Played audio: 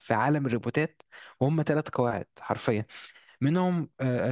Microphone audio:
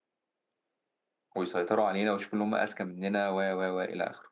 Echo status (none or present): none